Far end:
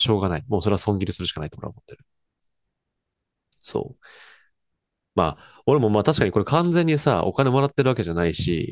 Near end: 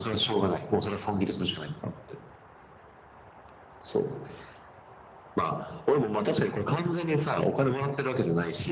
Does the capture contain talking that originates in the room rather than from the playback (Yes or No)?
No